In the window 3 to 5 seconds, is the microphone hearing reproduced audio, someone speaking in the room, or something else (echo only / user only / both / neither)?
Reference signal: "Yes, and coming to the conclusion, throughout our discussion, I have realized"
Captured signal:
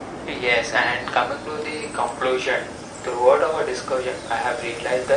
echo only